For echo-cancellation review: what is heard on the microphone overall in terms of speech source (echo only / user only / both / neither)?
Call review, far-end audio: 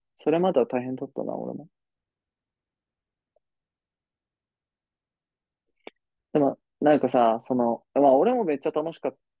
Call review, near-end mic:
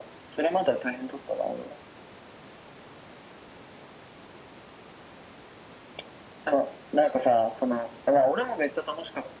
echo only